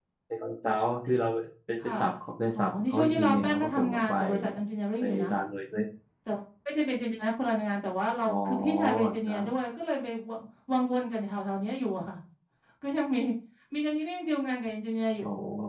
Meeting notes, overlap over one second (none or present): present